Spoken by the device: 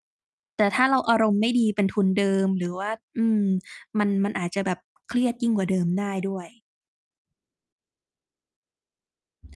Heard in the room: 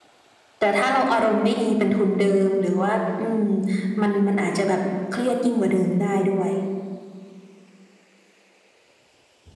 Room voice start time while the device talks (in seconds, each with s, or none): none